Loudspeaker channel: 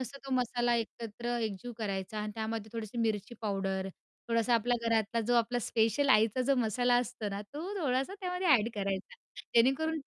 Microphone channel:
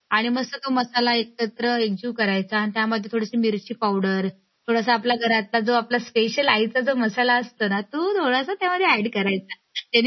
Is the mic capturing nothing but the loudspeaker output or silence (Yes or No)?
Yes